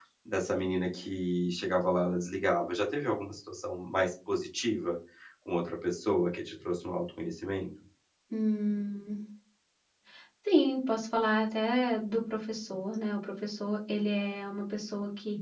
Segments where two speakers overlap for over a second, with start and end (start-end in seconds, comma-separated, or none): none